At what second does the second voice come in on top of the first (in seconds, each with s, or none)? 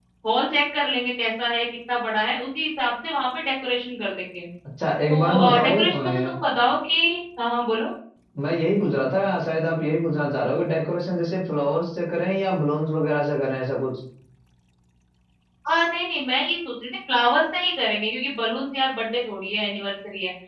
5.1 s